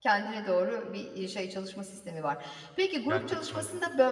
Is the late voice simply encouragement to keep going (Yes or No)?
Yes